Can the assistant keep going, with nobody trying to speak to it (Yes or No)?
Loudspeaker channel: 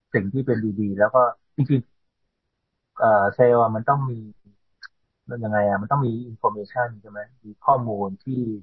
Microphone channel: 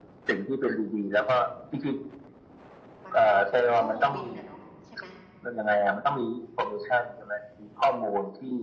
No